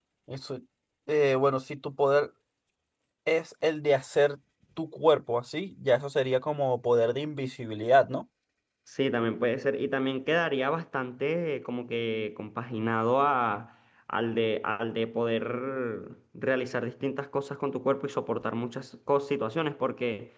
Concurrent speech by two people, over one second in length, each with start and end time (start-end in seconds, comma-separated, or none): none